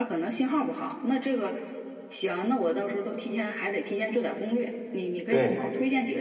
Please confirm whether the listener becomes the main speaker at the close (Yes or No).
No